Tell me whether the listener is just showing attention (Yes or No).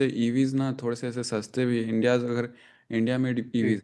Yes